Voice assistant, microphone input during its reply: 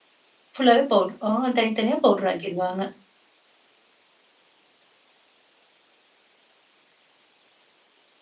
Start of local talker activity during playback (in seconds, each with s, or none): 0.6 s